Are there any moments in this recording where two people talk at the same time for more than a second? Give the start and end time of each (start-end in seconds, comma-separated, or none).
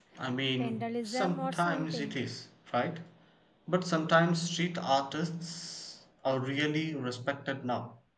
0.6-2.2